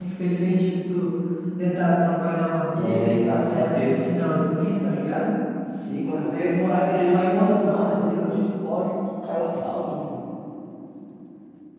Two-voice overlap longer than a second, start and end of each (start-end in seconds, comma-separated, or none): 2.7-3.9, 6.1-8.3